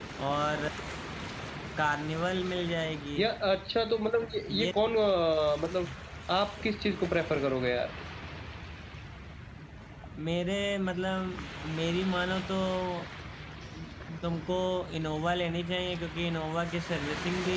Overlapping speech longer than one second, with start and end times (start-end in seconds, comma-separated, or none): none